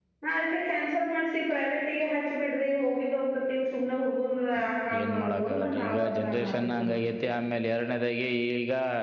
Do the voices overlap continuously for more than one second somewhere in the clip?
Yes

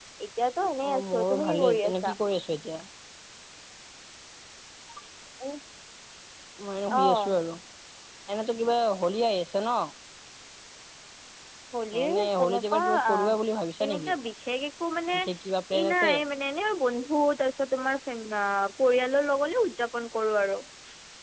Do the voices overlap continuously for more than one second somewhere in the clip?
Yes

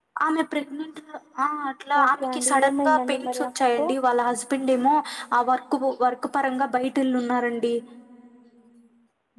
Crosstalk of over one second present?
Yes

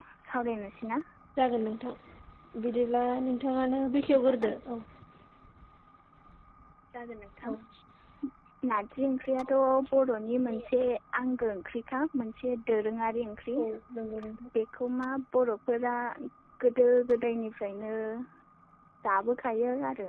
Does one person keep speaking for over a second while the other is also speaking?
No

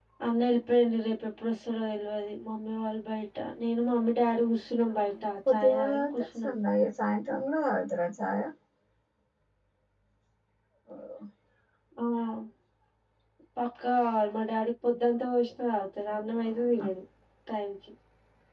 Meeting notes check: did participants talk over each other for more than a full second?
Yes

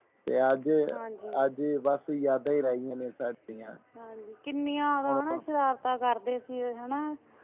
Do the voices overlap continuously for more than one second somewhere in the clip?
No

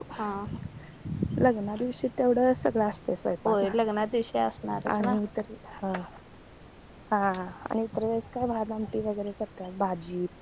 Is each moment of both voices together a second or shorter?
Yes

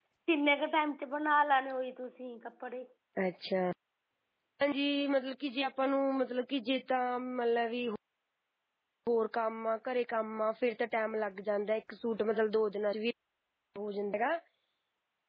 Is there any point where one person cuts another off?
No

